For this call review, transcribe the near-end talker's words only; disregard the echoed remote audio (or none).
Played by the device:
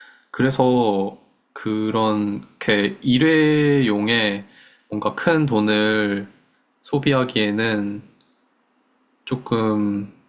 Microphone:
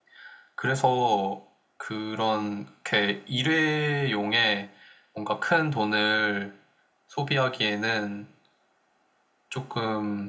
none